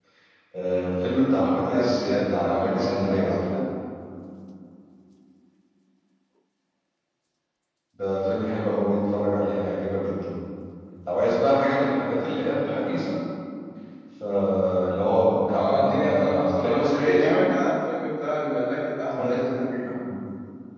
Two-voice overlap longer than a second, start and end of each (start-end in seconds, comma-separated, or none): 1.7-3.6, 15.5-17.5